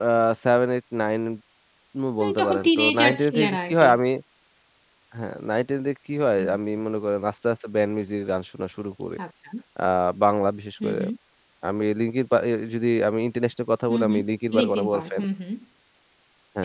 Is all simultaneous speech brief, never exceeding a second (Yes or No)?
No